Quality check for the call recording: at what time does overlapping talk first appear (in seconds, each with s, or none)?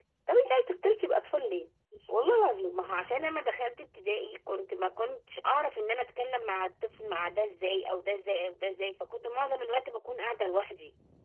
none